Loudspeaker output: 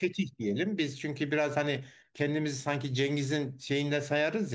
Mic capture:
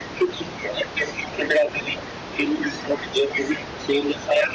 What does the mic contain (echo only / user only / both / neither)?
echo only